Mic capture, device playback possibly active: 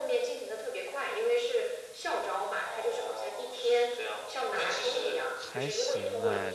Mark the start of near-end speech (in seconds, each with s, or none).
5.4 s